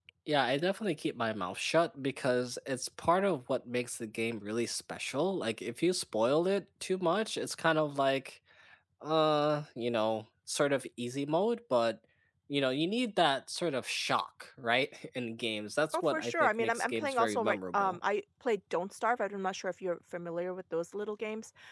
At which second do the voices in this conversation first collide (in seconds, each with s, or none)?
15.9 s